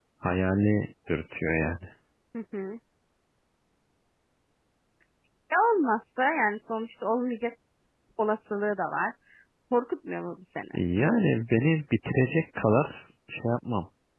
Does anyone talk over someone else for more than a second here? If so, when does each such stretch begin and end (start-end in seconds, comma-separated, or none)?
none